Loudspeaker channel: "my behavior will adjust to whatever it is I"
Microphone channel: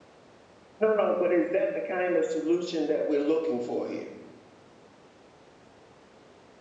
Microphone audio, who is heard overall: user only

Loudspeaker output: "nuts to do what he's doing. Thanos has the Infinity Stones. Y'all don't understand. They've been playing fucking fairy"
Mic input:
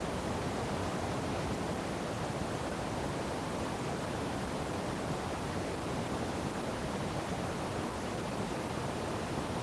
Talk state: neither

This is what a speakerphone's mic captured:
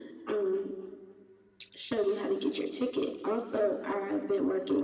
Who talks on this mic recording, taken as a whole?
echo only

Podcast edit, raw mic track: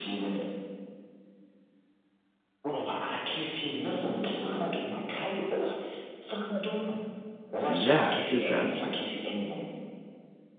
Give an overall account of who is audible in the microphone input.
both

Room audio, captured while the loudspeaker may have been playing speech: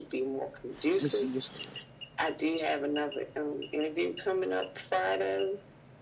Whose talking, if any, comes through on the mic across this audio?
both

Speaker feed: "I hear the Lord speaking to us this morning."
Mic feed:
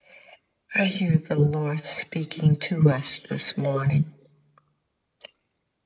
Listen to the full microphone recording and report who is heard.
echo only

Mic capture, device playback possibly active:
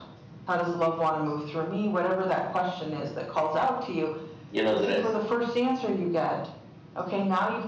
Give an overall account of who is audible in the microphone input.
both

